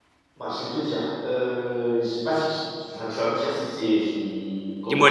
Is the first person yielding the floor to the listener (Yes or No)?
Yes